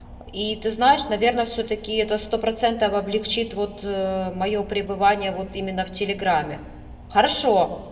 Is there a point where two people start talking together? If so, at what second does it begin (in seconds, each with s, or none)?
none